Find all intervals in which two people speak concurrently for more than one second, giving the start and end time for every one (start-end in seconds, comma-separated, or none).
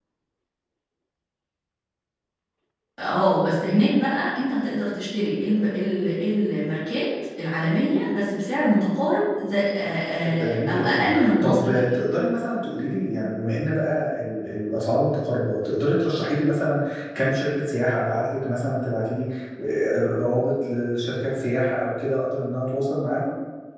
10.2-12.0